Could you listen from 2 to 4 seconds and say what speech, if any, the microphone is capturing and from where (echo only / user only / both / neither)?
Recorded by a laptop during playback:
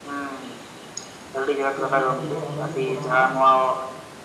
both